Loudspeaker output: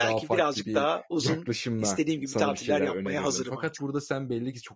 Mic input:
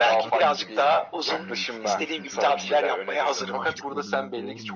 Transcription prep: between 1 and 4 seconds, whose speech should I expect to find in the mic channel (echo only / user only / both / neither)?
both